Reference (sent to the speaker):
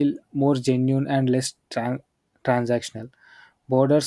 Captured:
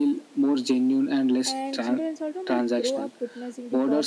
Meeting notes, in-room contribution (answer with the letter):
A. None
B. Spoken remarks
B